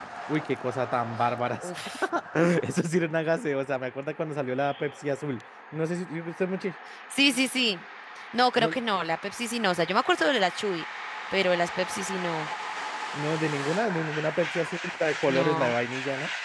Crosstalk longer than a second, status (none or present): none